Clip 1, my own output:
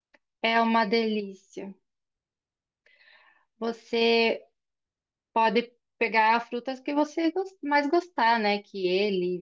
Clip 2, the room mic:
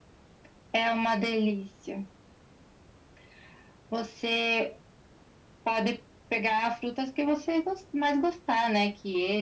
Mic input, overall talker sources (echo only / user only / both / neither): echo only